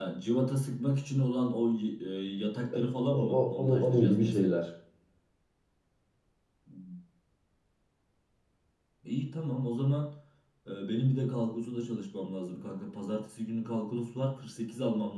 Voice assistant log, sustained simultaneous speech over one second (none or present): present